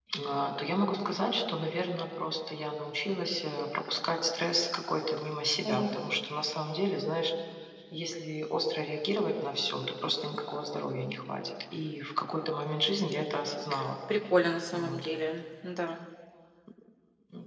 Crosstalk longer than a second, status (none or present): none